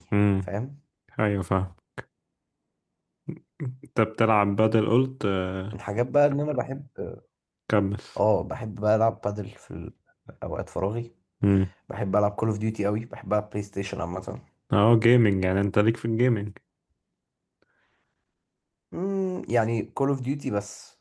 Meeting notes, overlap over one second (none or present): none